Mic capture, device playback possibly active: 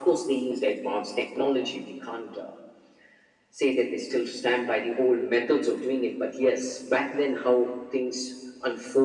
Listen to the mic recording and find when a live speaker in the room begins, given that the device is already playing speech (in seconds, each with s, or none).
none